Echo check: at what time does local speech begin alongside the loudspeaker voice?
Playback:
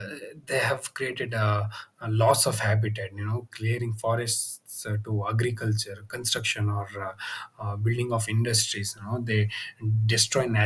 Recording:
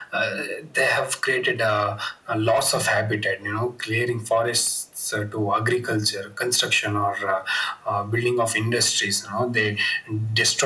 none

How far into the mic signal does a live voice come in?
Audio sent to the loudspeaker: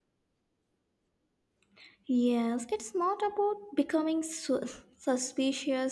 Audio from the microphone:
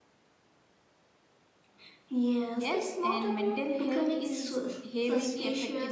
2.5 s

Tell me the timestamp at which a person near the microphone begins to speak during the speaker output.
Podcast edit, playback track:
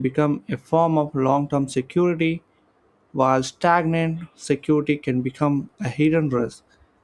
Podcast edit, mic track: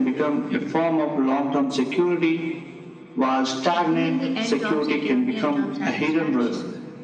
3.8 s

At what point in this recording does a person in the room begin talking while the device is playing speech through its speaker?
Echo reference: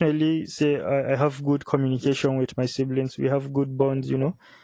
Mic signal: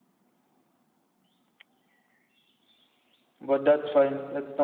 3.4 s

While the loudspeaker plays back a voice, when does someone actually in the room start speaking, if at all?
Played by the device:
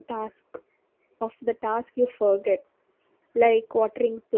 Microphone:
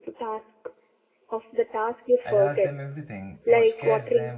2.2 s

